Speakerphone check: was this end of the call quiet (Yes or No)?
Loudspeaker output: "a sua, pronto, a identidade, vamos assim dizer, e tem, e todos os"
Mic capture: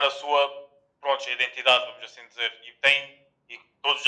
Yes